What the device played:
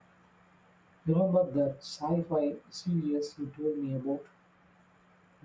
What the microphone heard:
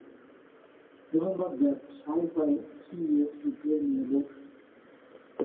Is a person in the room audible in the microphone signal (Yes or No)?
No